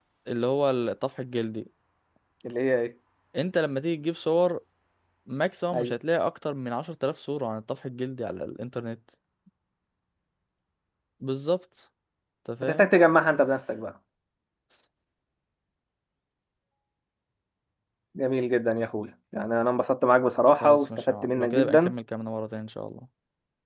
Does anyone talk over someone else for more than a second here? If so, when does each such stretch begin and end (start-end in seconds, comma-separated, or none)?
20.6-21.9